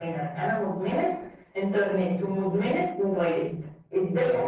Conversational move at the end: listening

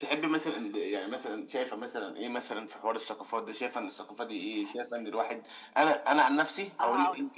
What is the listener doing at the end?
listening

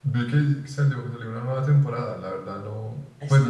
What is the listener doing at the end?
listening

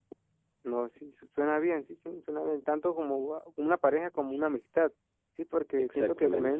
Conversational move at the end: listening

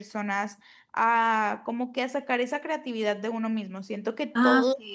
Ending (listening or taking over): listening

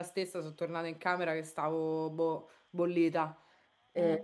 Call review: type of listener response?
listening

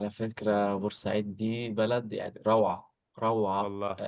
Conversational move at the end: listening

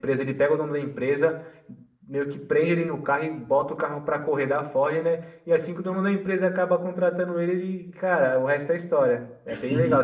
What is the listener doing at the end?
taking over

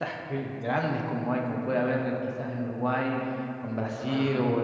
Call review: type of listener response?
listening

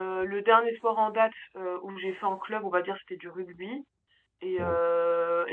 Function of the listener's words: listening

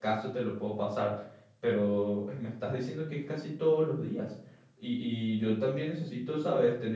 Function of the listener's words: listening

